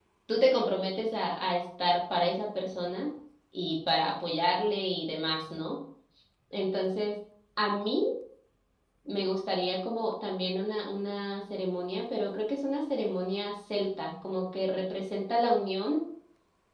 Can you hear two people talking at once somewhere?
No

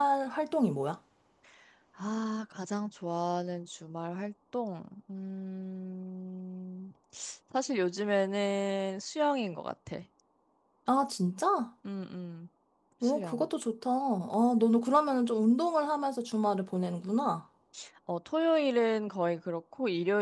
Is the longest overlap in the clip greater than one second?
No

